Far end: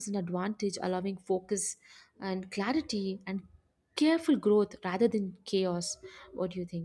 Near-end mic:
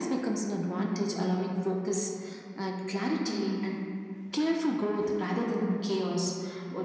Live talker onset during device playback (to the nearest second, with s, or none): none